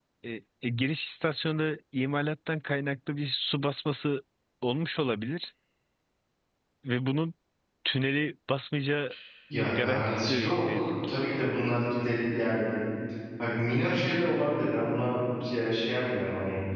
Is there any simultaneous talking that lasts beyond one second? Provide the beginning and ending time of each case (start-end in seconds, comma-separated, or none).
9.5-10.9